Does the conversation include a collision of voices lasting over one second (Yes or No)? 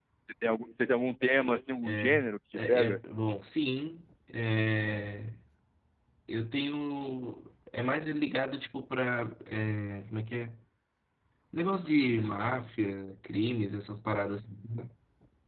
No